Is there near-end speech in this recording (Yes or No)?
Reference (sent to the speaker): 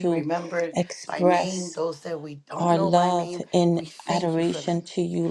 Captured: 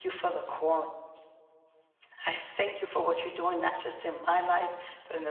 Yes